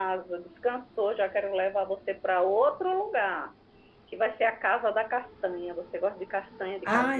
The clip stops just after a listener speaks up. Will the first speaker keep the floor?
No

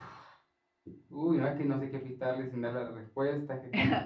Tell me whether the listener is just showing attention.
No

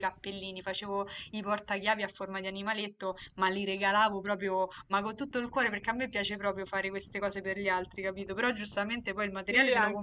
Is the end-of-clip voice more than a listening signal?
Yes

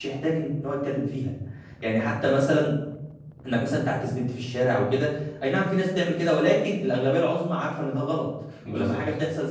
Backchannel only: Yes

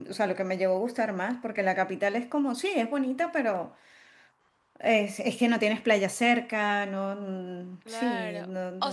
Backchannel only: No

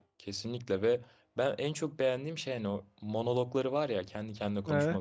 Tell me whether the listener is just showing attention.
Yes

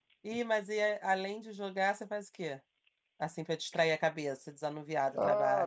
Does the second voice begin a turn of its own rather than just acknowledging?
Yes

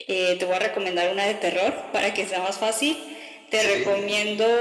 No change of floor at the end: Yes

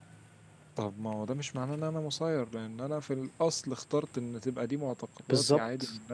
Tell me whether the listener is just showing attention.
Yes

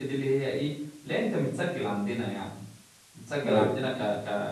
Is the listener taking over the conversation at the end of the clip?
No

